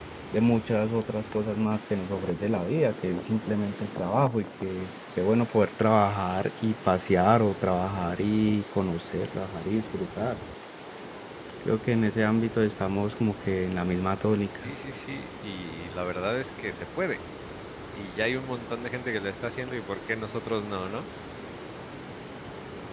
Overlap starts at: none

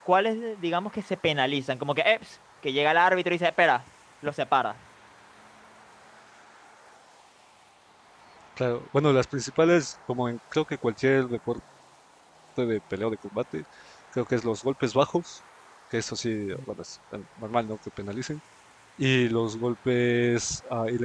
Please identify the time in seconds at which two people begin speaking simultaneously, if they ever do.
none

